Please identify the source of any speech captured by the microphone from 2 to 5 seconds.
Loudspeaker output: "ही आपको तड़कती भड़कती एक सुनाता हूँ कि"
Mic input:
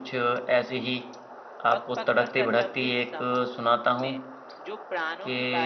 both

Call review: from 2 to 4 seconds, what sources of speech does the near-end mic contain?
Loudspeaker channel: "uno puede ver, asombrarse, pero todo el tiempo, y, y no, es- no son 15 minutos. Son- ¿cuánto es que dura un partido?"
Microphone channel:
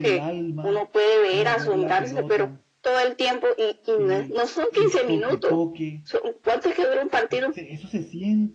both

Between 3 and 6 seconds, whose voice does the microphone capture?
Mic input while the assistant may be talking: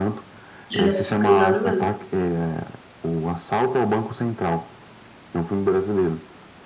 echo only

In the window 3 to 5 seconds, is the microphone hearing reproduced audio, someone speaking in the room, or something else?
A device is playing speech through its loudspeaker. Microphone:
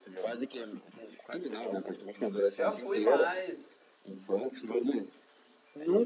both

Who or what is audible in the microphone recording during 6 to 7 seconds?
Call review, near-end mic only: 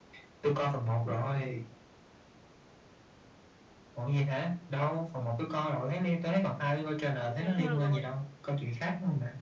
echo only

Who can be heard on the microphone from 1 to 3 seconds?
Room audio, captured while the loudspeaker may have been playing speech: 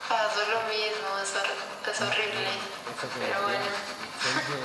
both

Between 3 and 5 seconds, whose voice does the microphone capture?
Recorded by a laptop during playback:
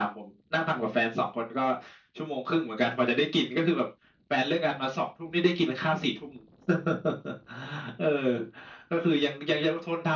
echo only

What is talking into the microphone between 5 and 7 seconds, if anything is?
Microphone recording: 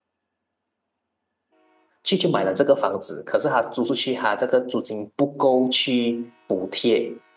user only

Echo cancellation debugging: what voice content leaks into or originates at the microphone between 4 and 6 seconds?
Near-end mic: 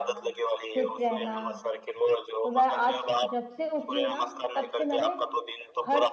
both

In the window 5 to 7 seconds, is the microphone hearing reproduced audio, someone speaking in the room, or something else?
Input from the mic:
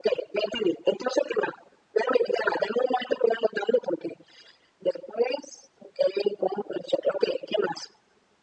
echo only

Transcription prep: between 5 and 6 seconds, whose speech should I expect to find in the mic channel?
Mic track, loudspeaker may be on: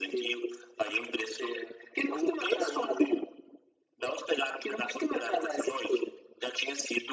echo only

